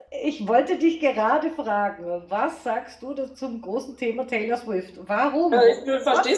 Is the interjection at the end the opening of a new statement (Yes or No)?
Yes